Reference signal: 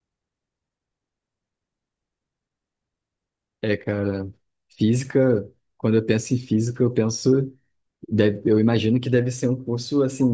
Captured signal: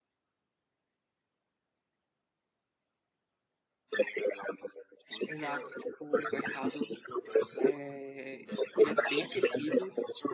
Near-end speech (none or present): present